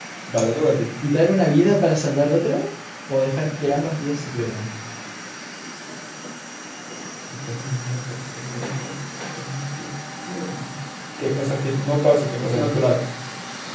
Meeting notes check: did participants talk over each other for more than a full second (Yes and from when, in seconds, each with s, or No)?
No